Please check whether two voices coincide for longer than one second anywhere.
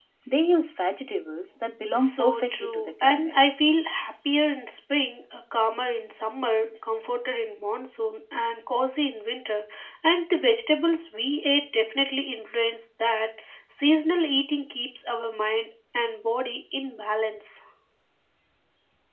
Yes, from 1.9 s

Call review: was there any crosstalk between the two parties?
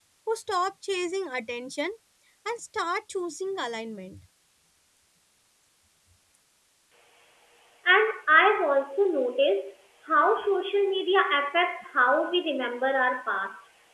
No

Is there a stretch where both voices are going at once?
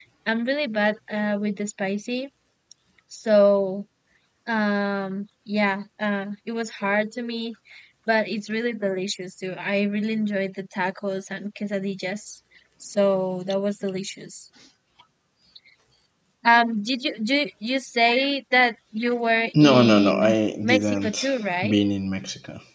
Yes, from 19.5 s

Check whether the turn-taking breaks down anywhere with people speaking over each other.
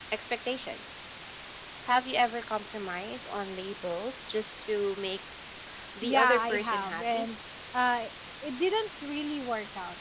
Yes, from 6.0 s

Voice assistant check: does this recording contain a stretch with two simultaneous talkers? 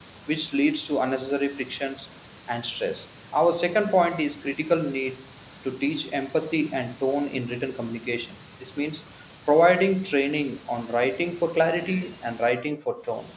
No

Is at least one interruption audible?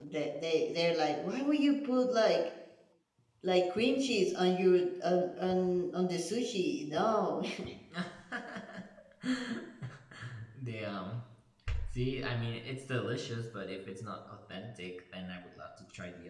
No

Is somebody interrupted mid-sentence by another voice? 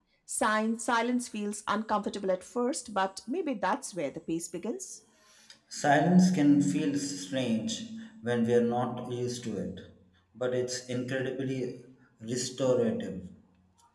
No

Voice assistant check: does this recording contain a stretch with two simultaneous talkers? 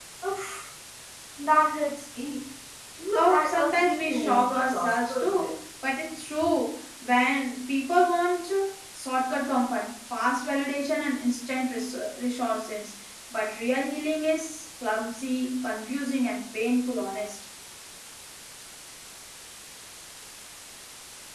Yes, from 3.1 s

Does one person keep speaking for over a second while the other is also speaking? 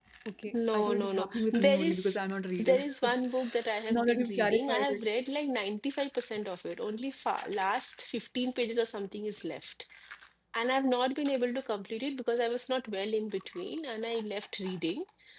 Yes, from 0.5 s

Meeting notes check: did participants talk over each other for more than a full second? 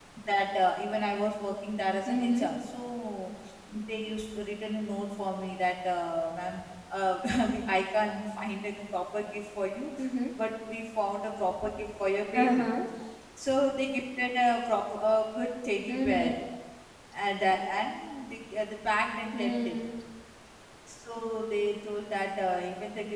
No

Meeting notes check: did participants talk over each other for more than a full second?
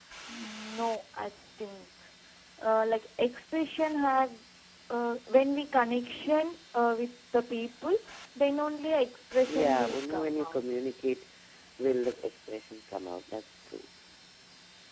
Yes, from 9.5 s

